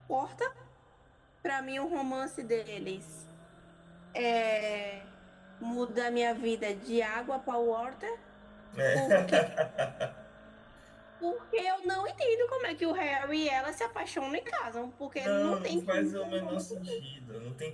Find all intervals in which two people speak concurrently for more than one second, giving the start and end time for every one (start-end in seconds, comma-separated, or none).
15.2-16.7